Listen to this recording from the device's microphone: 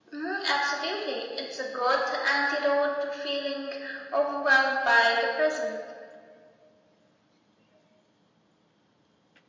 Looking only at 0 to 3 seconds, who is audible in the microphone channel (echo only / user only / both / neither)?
echo only